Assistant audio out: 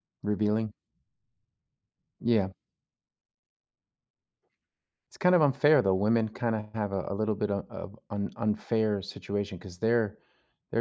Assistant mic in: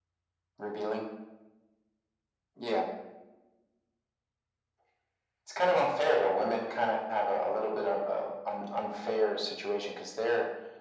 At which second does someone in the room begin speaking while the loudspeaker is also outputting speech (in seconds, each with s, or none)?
none